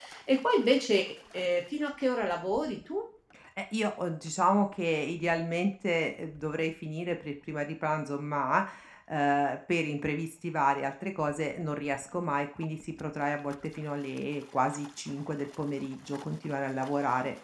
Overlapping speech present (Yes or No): No